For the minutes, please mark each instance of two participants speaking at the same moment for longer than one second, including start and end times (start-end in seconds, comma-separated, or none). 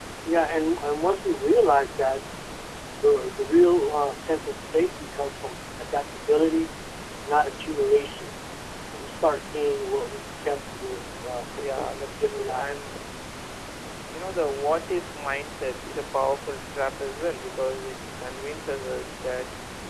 11.6-12.9